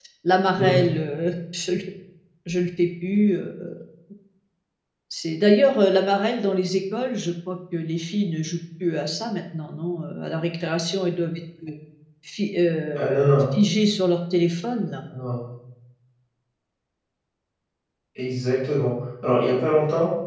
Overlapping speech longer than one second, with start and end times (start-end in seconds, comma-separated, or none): none